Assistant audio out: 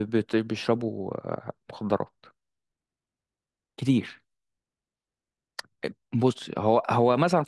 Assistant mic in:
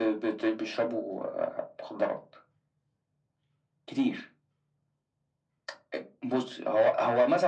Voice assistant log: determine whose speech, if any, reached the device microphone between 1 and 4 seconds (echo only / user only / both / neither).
echo only